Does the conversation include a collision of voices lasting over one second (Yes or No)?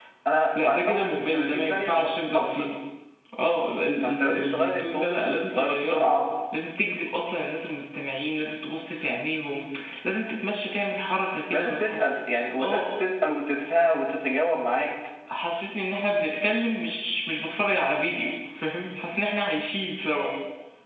Yes